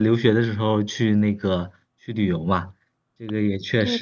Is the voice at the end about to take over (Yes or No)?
Yes